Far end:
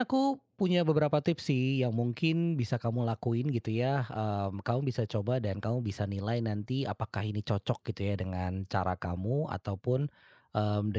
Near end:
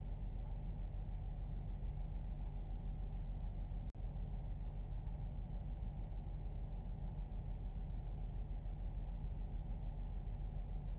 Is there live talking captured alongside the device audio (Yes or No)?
No